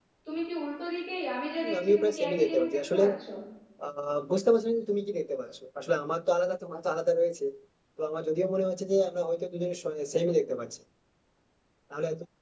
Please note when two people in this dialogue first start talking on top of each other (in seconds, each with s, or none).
1.6 s